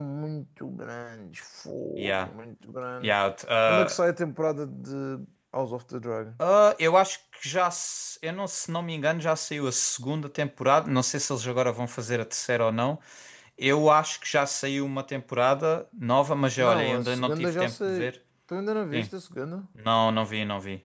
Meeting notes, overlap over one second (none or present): present